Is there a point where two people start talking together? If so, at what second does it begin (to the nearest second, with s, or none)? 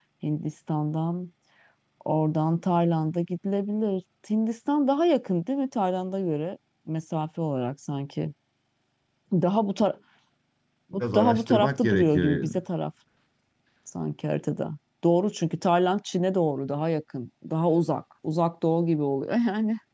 11 s